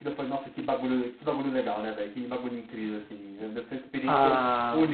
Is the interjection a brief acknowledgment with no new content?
No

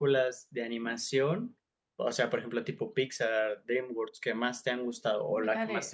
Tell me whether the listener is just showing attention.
No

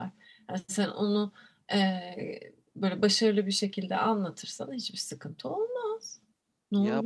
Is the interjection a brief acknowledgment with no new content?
No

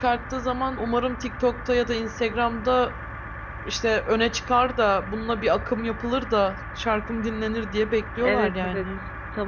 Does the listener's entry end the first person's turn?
Yes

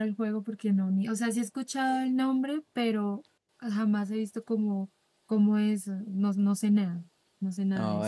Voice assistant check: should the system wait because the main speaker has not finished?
No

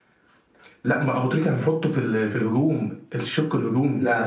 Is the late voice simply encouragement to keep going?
No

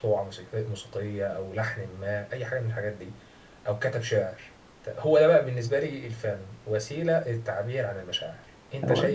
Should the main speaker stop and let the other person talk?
No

